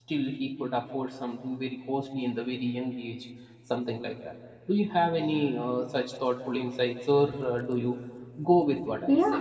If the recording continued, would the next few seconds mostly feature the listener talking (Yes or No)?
Yes